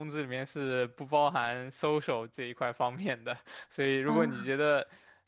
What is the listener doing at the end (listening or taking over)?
listening